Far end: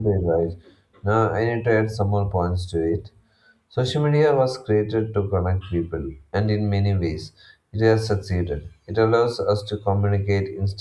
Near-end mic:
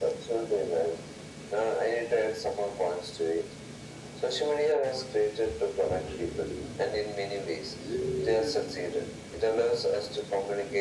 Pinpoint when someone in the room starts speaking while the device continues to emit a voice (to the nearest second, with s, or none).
none